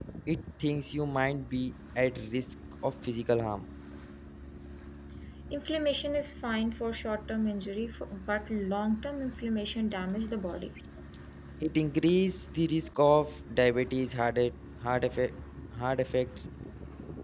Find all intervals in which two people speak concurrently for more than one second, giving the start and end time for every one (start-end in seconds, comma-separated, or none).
none